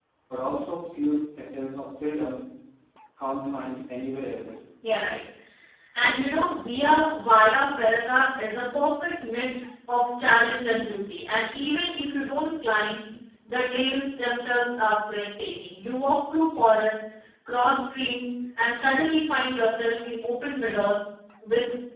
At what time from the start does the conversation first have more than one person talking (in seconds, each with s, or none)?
none